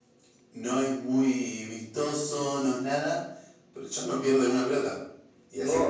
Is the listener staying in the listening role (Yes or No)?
No